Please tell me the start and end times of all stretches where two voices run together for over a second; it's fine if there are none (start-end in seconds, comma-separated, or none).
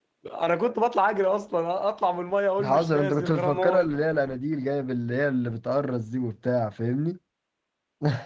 2.6-3.9